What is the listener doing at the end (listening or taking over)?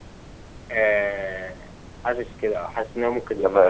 taking over